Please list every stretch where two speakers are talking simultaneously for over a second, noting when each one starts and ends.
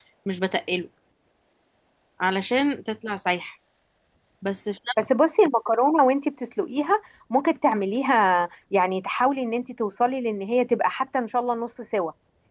none

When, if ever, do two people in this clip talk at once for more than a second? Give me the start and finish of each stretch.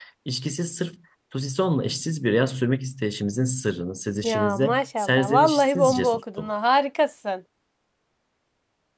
4.2-6.5

